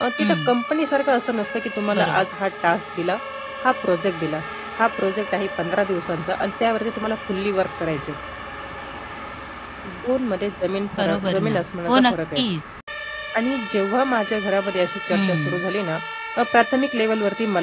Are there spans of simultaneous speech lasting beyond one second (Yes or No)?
Yes